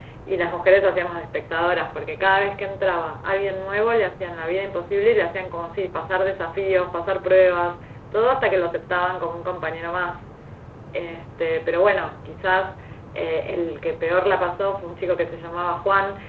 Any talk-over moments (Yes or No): No